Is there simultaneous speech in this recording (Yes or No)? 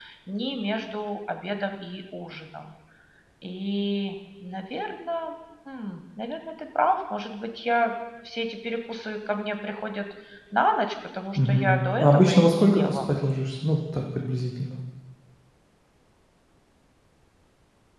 Yes